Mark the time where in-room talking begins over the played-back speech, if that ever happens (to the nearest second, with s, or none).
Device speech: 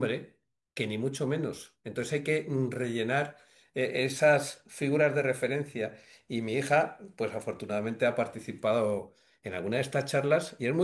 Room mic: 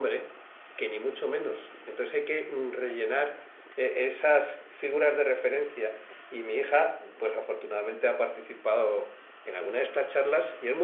none